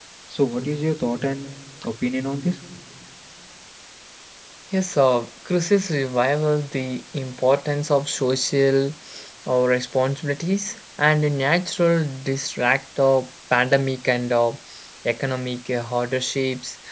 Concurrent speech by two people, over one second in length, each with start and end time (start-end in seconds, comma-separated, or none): none